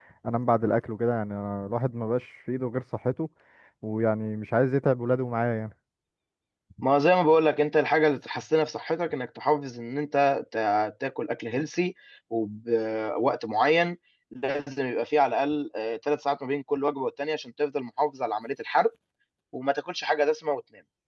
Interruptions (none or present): none